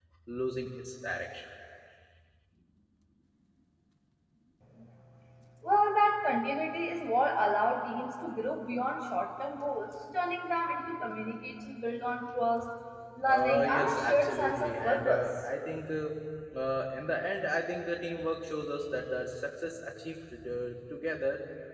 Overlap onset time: 13.2 s

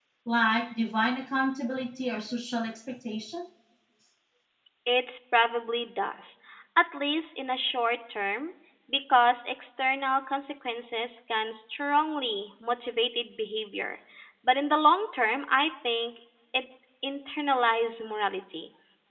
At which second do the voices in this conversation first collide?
none

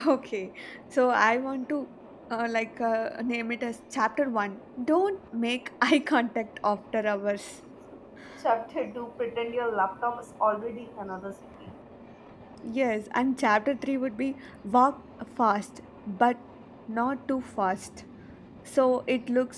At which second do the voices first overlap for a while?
none

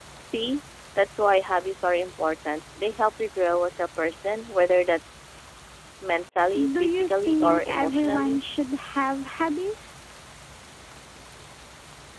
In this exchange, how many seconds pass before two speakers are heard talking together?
6.8 s

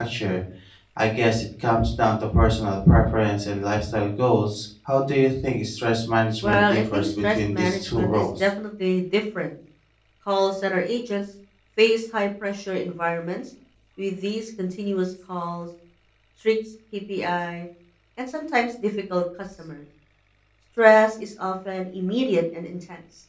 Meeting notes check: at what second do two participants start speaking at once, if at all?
6.4 s

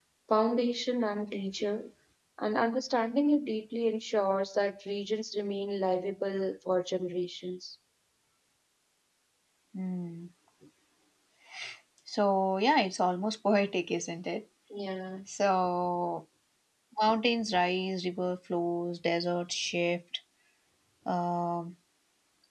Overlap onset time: none

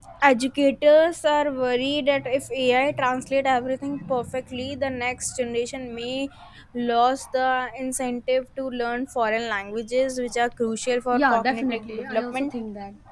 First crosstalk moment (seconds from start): 11.1 s

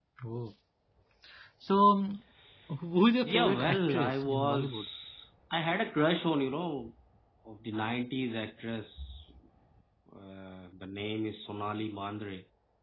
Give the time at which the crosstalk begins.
3.2 s

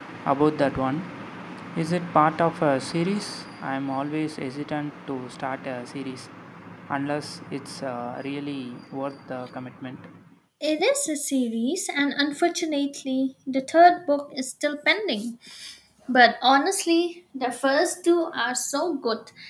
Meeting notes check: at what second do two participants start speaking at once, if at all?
none

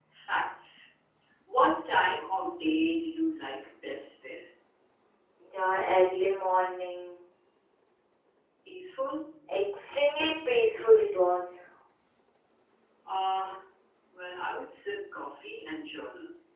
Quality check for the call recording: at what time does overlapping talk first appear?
none

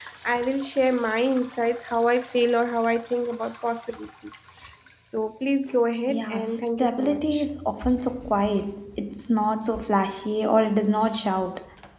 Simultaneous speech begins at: 6.1 s

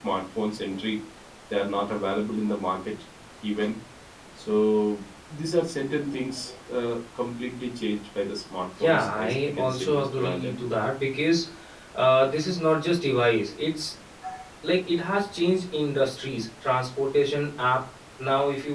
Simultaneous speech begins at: 8.8 s

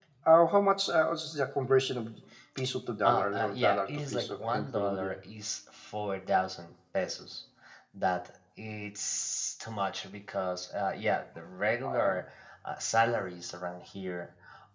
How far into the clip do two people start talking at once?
3.0 s

